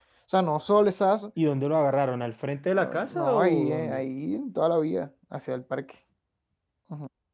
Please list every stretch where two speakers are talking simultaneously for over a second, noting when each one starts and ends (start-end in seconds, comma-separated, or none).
2.7-4.0